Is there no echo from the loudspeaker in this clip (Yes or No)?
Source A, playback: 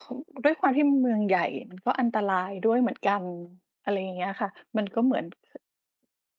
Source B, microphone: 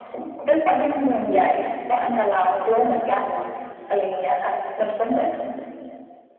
No